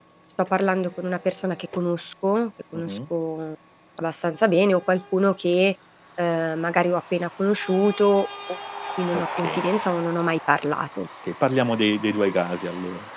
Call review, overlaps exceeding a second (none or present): none